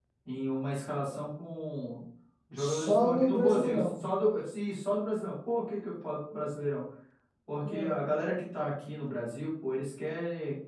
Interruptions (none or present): present